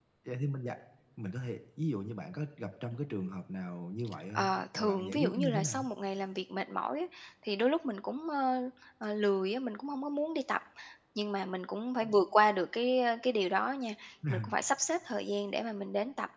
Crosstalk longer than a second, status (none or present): present